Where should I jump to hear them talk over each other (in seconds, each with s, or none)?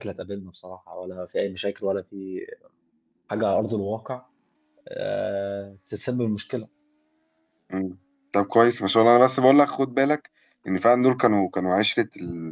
none